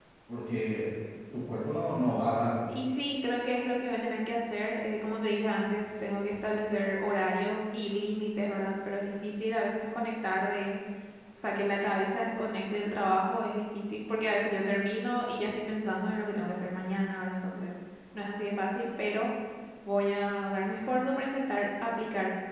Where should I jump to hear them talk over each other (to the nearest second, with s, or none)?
none